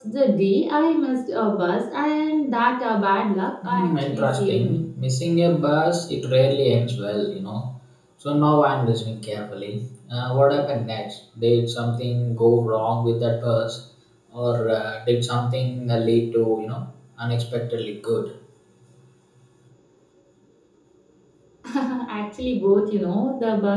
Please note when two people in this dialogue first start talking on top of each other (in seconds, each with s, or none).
3.6 s